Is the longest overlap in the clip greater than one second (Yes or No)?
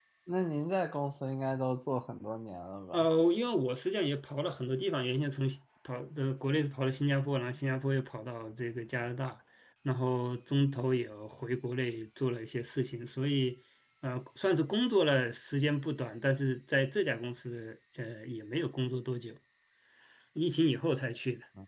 No